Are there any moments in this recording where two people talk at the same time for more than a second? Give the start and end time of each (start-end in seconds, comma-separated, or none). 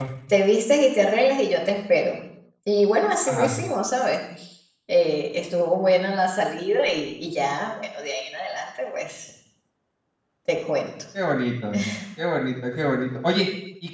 none